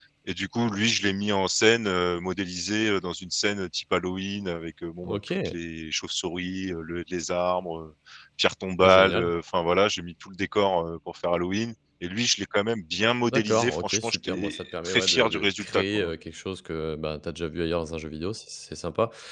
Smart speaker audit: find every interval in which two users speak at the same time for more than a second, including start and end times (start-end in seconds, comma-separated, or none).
13.3-16.1